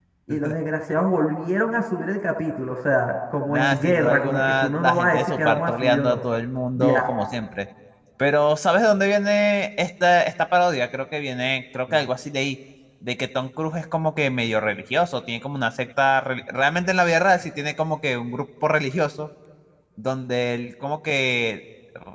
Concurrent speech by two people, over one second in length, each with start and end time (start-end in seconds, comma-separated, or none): 3.5-6.2